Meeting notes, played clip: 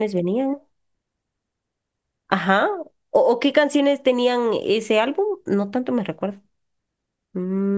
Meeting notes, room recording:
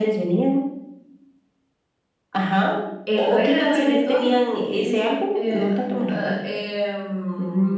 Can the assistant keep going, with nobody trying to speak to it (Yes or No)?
No